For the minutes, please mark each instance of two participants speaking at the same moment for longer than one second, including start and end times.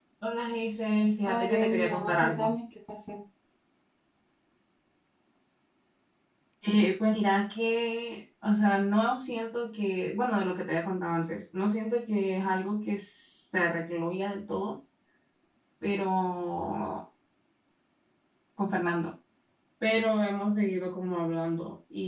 1.2-2.5

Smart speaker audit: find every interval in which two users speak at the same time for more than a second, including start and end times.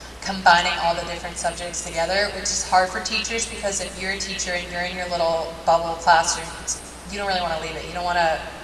none

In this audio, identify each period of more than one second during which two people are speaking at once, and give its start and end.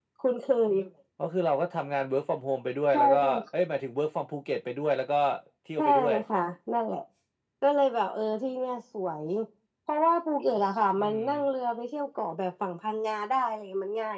none

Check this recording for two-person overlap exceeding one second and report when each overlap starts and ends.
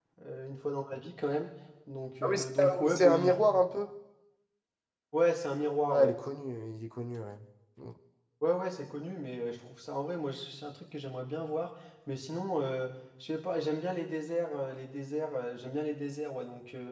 2.2-3.4

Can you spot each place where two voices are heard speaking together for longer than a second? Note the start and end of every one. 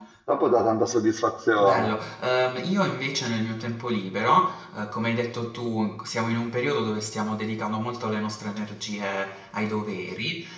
none

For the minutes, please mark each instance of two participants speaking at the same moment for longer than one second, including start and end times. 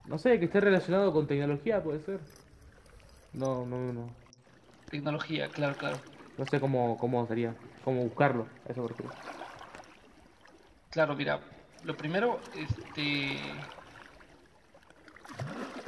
none

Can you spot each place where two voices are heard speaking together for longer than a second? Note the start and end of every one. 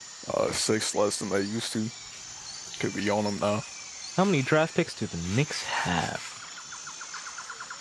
none

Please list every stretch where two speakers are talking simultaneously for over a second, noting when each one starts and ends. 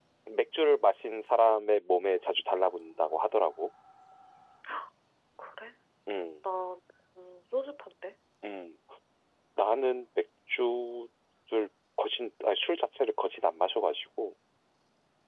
none

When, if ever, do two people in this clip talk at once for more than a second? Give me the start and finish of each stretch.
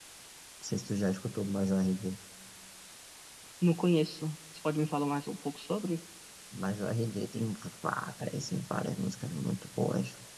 none

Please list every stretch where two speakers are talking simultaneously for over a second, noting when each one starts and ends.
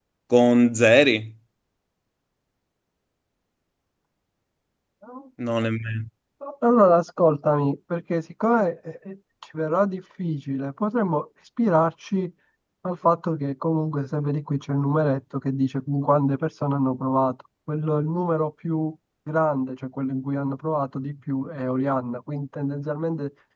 none

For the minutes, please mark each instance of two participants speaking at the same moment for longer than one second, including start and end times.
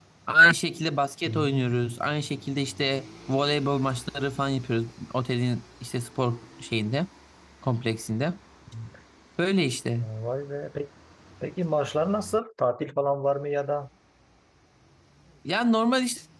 none

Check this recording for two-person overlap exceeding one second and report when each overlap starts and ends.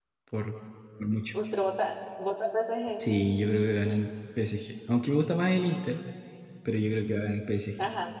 none

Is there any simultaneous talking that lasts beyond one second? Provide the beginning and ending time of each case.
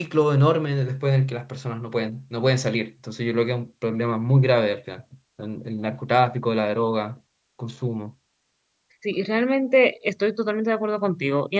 none

